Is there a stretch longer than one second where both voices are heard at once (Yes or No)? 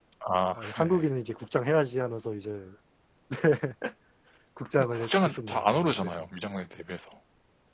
Yes